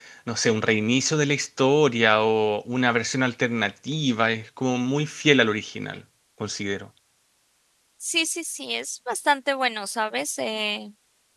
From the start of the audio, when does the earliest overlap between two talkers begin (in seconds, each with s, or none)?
none